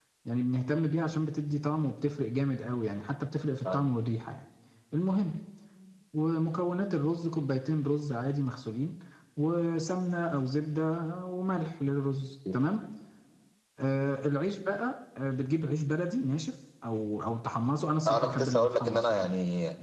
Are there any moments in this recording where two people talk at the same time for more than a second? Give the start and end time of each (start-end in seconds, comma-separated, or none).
18.1-19.3